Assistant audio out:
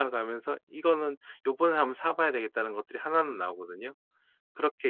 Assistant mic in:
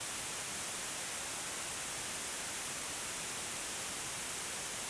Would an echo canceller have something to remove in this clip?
No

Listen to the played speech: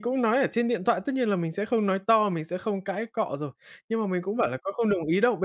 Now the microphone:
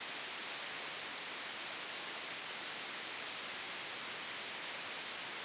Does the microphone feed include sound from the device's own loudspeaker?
No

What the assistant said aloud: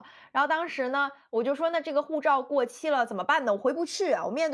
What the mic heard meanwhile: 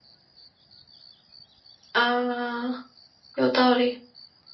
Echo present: No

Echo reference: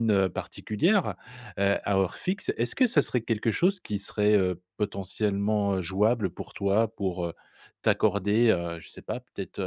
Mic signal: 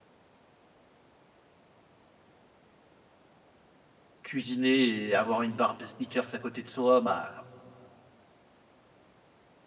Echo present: No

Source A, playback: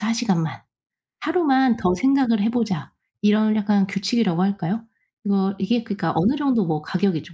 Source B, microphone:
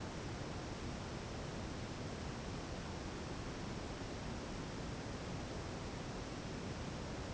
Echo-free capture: Yes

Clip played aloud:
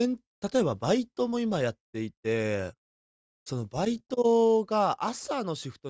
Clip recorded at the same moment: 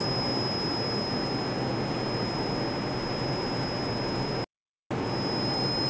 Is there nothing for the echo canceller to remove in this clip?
Yes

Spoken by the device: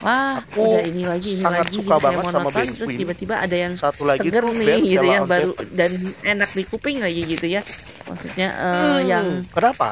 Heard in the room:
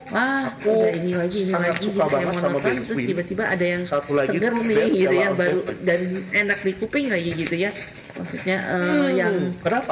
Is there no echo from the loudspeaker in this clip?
No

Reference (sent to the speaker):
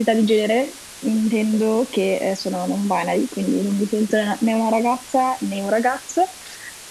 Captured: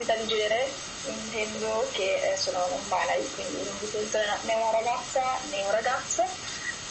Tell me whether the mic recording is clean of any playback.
No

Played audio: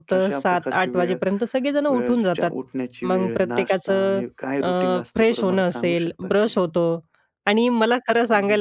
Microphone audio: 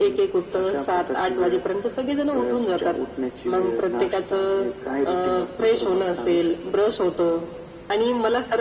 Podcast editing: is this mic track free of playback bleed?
No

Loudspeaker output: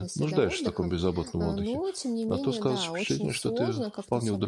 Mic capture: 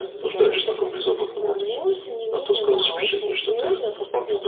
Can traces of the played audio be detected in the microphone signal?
Yes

